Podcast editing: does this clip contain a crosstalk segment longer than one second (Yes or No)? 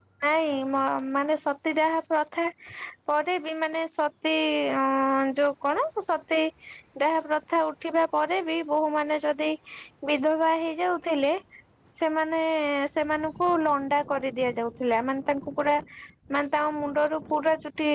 No